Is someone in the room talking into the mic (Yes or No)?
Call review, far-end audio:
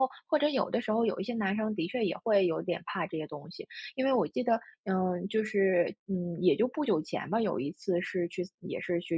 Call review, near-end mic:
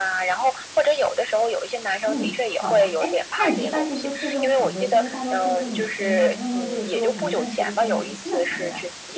Yes